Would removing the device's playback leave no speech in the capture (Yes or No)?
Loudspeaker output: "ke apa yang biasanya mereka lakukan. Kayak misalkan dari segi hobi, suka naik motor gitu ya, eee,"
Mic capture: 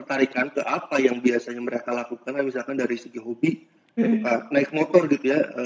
No